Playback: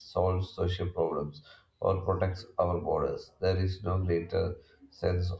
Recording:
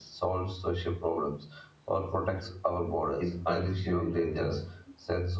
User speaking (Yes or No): Yes